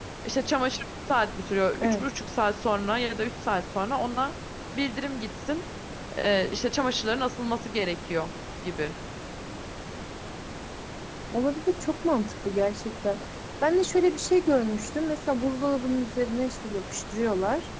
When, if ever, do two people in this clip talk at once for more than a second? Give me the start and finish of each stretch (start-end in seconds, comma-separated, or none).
none